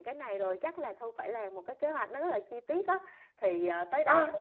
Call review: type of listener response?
listening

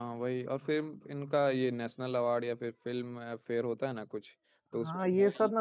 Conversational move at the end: taking over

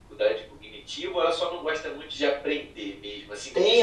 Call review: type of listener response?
taking over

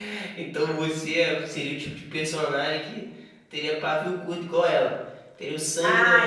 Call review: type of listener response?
taking over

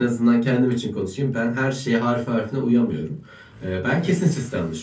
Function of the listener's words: listening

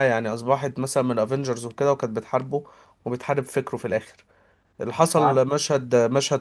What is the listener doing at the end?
listening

